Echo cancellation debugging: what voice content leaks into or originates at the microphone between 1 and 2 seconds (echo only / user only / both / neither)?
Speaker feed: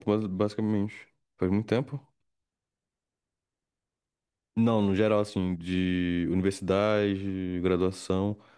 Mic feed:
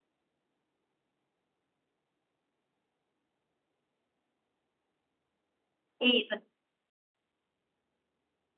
neither